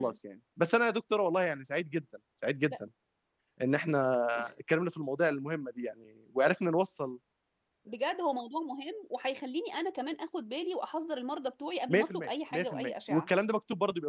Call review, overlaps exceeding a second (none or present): present